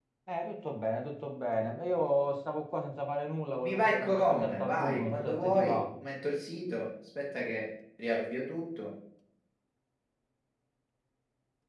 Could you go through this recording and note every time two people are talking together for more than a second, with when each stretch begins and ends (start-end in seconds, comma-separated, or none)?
3.6-5.8